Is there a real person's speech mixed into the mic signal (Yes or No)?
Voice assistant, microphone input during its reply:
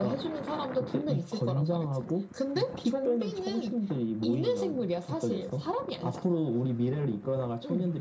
No